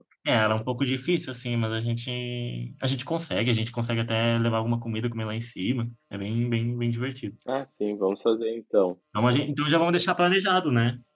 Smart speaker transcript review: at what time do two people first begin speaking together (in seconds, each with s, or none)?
none